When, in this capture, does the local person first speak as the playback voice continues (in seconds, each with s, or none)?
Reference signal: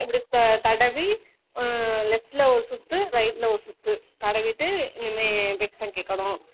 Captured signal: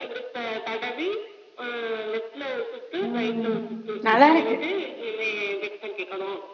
3.1 s